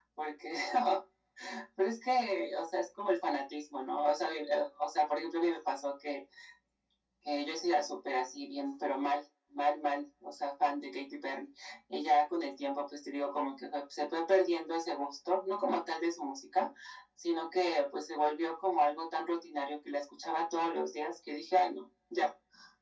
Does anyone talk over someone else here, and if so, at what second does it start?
none

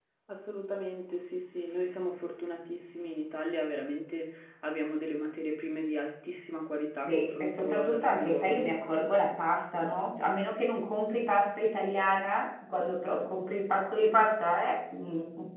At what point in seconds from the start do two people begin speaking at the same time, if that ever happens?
7.1 s

